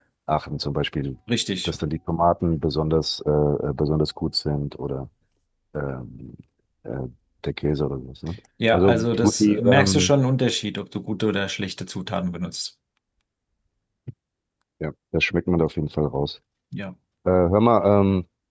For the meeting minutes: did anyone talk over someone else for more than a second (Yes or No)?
Yes